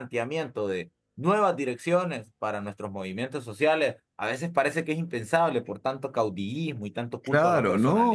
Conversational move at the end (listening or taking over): taking over